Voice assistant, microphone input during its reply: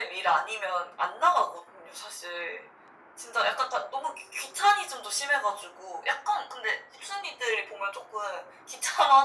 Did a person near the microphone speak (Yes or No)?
No